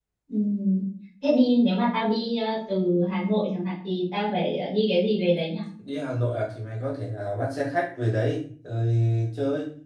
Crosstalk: none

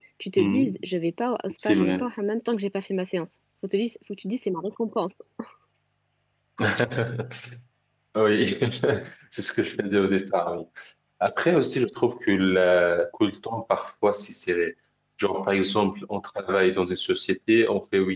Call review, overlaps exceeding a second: none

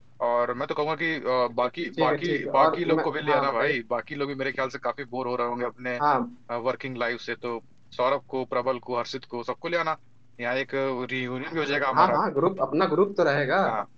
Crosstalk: present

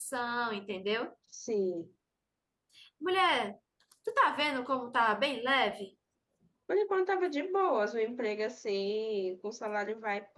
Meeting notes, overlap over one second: none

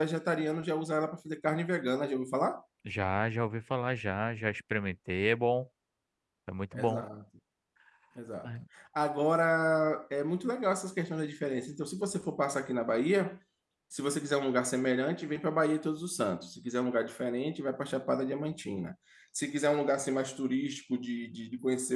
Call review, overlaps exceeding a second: none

